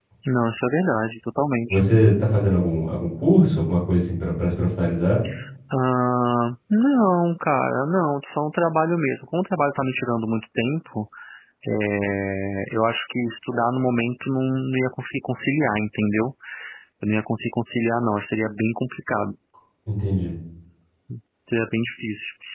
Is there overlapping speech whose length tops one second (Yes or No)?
No